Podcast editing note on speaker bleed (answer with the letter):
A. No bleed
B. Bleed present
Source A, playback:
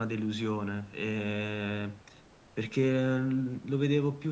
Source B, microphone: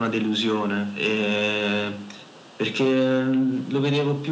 B